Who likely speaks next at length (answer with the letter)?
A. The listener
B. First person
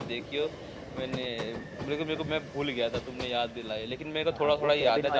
A